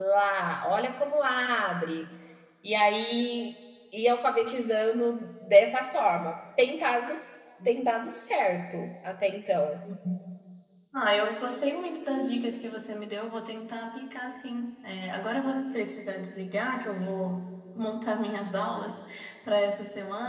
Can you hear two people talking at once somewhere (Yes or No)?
No